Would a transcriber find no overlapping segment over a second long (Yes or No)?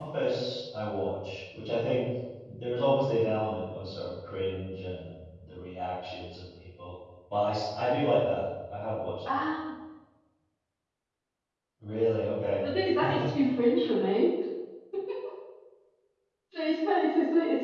Yes